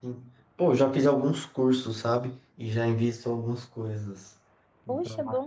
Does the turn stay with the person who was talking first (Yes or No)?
No